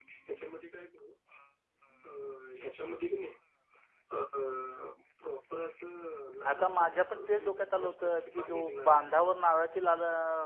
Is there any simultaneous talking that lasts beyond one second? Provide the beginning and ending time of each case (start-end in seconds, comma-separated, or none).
6.5-9.0